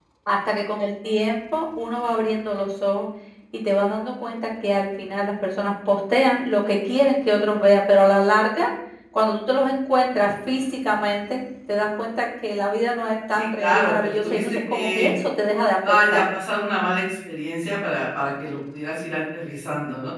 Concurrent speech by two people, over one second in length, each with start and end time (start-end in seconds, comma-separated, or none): 13.3-15.1